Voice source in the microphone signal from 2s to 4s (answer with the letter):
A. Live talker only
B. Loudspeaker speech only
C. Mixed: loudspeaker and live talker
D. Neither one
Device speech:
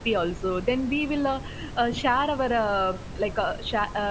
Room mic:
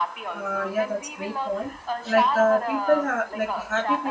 C